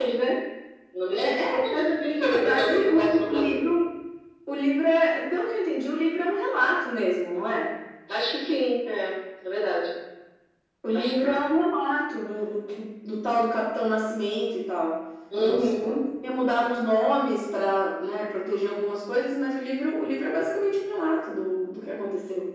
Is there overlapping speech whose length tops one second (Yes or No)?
Yes